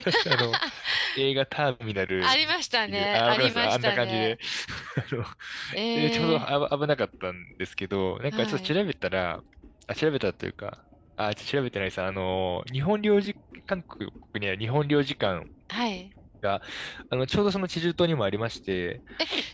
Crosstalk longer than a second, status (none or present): present